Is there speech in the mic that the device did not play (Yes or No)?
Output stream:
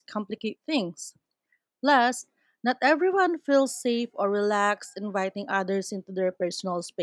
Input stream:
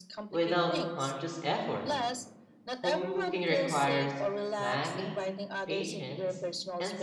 Yes